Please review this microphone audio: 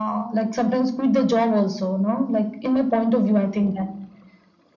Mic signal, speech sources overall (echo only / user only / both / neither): echo only